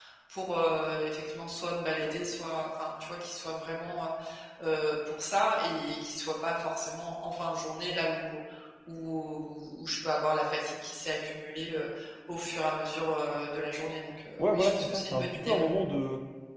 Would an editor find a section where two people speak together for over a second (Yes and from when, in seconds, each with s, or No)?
Yes, from 14.4 s